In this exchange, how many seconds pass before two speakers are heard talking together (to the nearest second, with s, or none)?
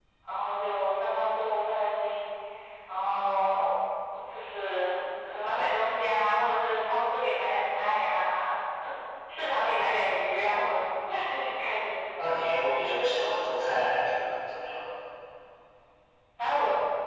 none